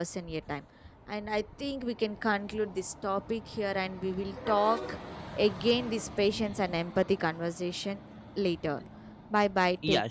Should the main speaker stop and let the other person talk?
Yes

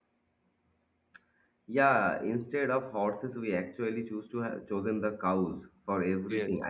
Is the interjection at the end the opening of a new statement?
No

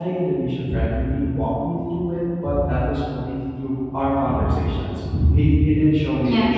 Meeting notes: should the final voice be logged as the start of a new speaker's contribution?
No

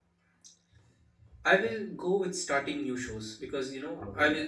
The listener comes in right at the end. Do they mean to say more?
No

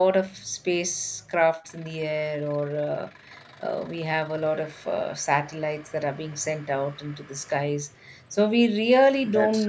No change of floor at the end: Yes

